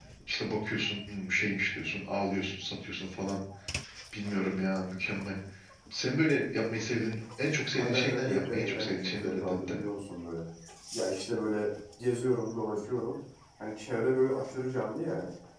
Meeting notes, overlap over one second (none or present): present